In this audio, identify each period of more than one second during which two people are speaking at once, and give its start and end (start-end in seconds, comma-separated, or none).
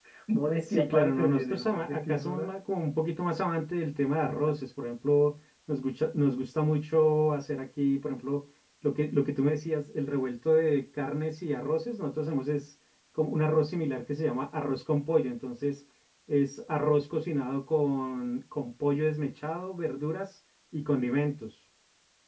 0.6-2.5